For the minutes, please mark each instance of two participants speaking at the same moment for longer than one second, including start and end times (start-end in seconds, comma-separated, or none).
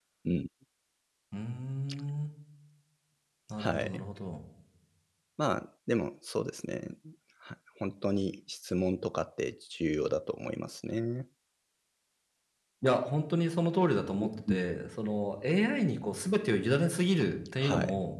none